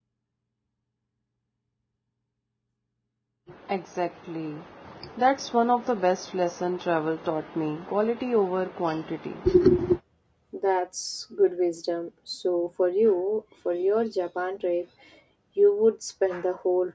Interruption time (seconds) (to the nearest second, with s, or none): none